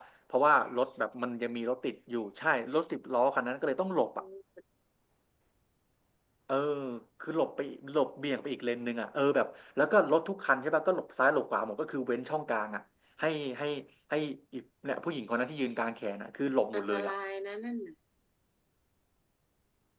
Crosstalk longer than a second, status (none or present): none